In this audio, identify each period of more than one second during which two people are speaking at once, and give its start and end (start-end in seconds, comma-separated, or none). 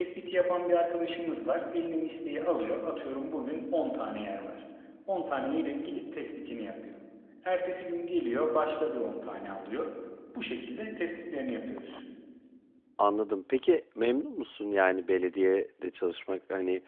none